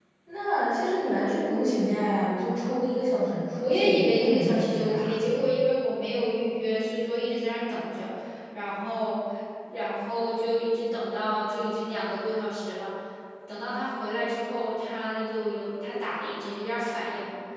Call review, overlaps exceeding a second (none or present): present